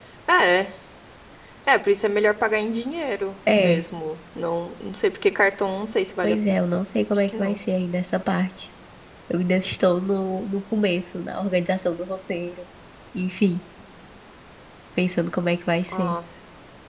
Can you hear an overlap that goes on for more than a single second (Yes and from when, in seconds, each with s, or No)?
No